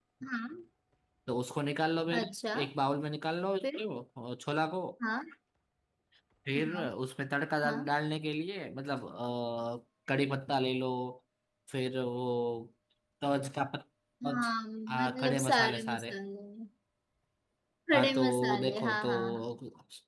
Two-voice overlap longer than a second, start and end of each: 14.9-16.1, 17.9-19.5

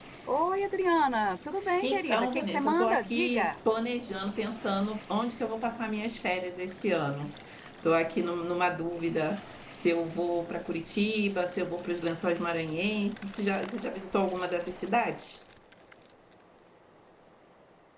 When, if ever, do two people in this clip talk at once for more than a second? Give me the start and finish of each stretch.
1.8-3.5

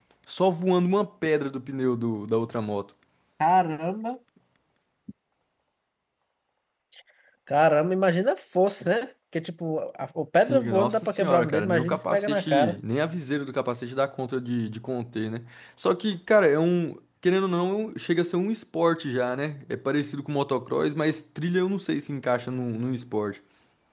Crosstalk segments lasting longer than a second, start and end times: 10.4-12.8

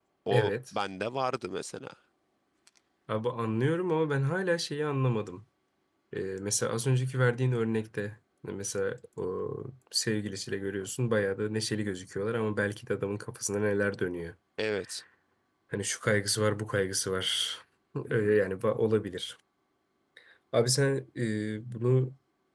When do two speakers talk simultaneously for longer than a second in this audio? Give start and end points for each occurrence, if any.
none

